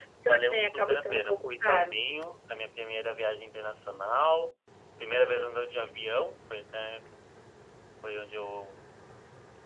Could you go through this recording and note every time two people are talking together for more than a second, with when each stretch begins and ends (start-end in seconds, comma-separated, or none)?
0.5-2.0